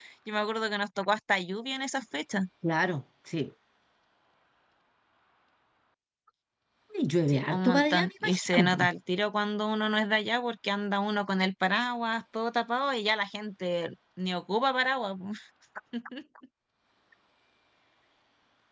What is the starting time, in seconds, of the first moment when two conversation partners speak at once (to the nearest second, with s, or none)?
7 s